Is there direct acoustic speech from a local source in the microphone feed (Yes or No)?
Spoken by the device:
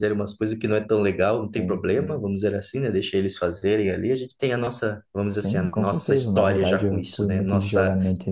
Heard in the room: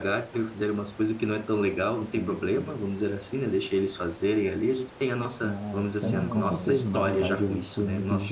Yes